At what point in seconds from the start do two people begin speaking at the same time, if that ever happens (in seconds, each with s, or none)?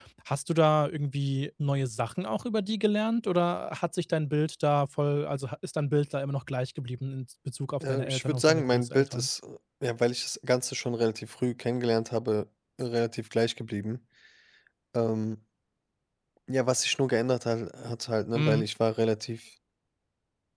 7.8 s